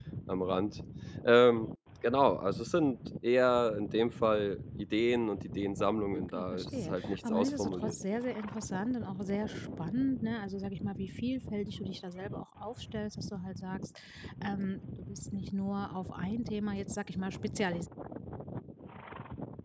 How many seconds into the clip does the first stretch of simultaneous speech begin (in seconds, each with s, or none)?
6.1 s